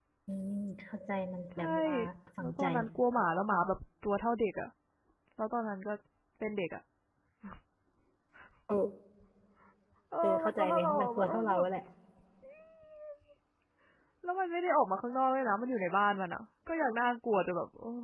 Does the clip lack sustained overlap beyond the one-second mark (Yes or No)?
No